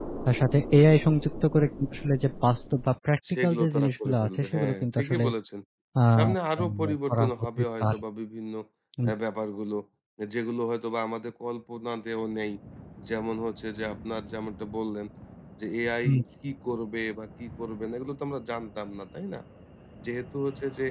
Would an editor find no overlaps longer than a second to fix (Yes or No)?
No